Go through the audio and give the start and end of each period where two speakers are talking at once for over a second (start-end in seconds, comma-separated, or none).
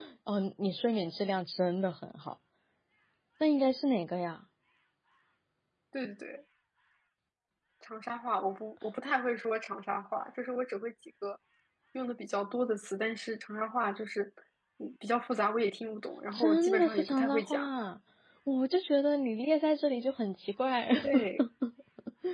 16.3-17.7